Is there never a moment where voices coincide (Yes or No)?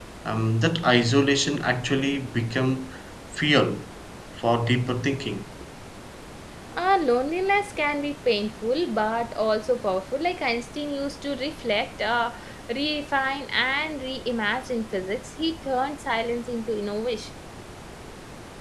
Yes